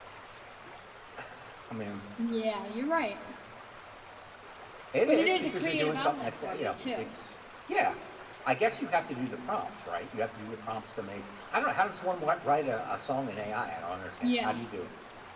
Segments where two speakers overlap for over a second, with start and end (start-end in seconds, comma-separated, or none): 5.1-7.1